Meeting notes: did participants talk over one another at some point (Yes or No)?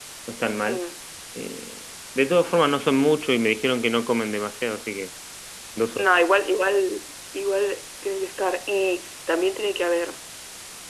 No